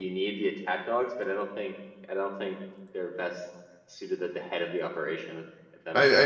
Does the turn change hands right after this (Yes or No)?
Yes